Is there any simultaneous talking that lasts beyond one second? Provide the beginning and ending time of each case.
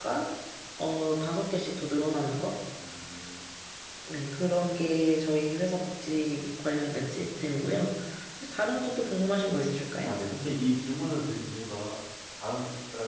none

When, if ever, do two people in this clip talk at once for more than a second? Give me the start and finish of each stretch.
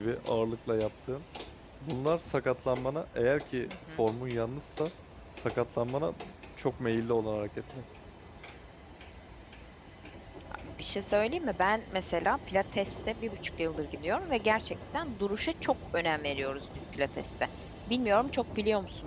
none

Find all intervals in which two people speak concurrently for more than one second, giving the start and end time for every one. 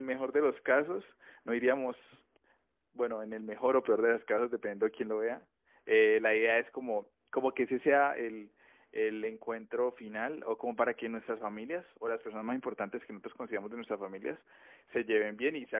none

